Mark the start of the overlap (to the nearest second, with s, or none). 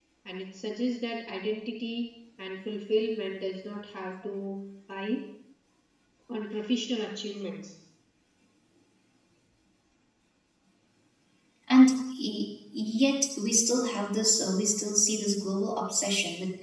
none